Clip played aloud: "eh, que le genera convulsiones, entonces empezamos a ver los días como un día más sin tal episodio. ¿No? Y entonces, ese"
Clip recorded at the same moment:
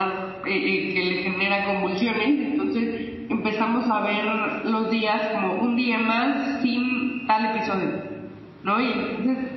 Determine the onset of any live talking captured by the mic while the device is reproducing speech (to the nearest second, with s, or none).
none